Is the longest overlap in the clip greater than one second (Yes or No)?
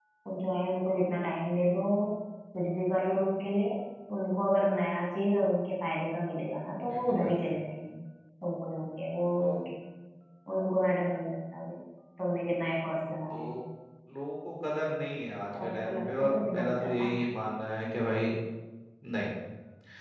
Yes